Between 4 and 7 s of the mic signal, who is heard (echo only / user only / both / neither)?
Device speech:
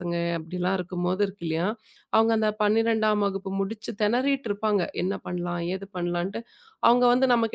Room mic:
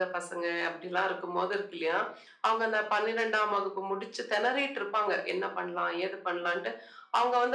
echo only